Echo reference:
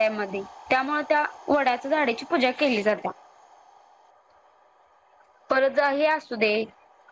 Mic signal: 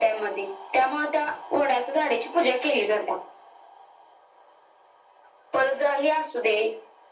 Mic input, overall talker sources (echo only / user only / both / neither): echo only